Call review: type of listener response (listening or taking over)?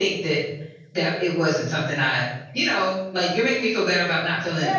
taking over